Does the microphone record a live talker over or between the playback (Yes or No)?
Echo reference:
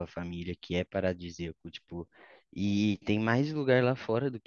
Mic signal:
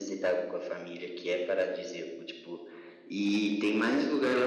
No